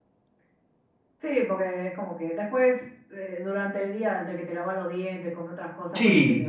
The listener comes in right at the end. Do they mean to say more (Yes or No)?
Yes